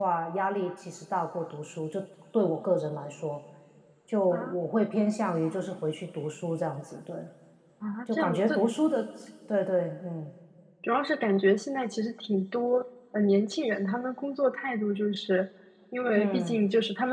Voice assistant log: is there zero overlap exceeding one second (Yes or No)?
Yes